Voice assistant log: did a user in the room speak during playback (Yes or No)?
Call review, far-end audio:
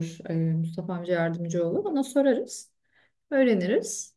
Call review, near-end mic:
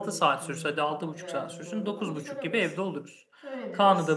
Yes